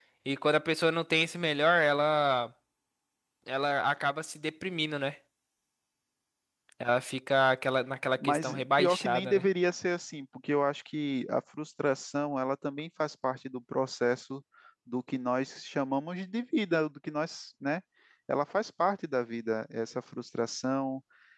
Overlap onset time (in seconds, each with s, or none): 8.2 s